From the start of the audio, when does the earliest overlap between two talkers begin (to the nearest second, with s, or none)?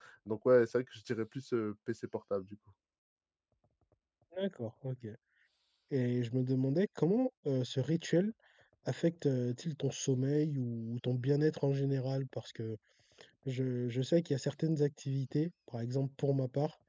none